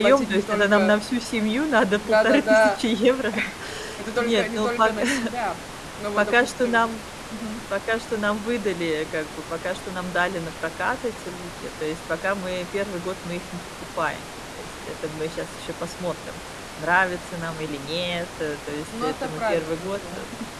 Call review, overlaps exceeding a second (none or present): present